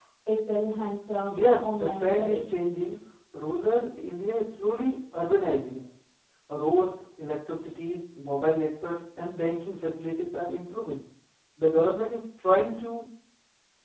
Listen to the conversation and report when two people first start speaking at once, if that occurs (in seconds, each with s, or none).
1.3 s